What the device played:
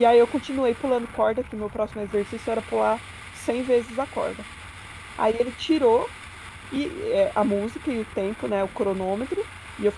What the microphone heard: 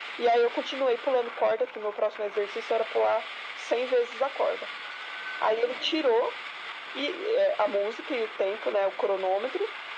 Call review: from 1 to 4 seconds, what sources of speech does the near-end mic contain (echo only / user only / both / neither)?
echo only